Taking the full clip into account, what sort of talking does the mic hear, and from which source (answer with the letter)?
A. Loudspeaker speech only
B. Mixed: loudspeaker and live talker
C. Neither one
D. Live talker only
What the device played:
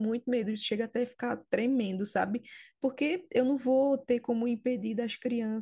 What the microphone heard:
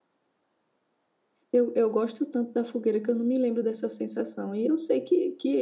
D